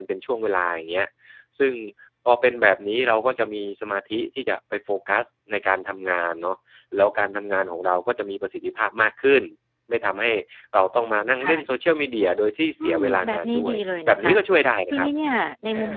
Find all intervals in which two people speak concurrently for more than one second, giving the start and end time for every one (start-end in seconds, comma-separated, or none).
12.8-14.3